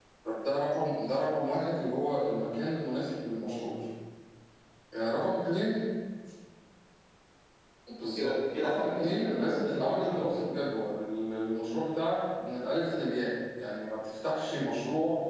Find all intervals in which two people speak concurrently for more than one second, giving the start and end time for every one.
8.2-10.6

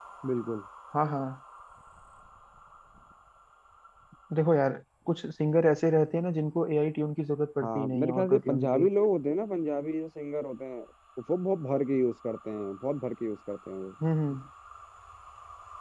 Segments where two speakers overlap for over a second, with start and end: 7.6-8.9

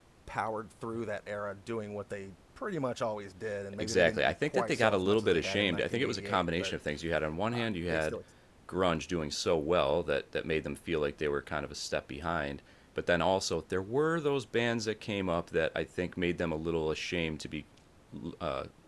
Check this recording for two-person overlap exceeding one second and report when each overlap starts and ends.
3.8-6.7

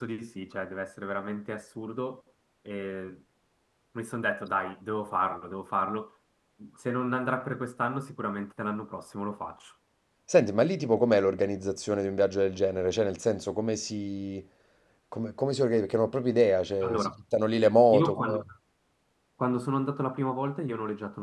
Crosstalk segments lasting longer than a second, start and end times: none

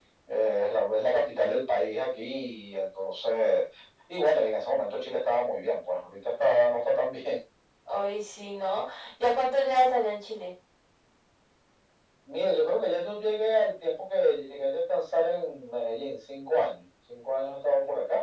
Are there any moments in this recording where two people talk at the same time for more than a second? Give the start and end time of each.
none

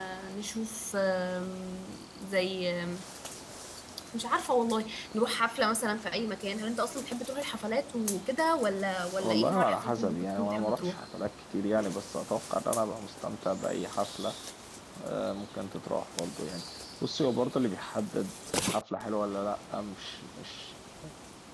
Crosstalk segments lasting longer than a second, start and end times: 9.2-11.1

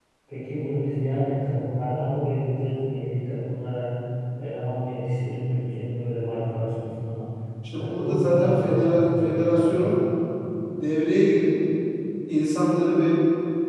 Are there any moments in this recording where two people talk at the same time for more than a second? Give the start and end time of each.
7.8-10.0

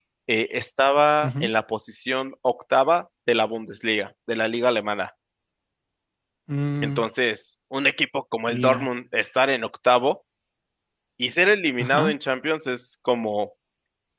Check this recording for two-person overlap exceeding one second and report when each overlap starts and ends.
none

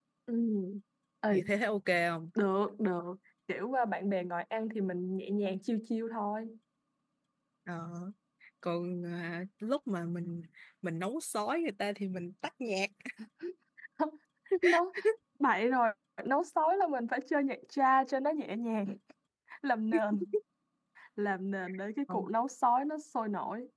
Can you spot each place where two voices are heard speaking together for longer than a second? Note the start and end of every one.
none

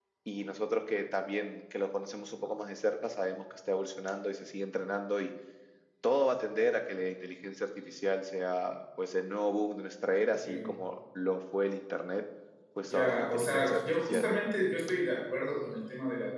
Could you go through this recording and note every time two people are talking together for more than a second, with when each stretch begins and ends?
12.9-14.3

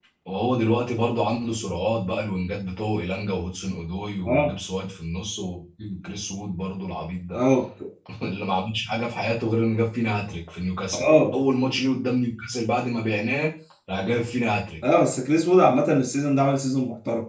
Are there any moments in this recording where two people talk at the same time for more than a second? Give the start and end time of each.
none

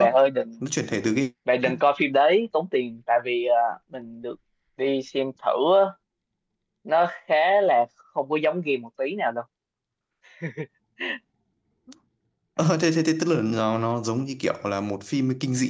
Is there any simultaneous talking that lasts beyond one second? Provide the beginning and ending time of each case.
none

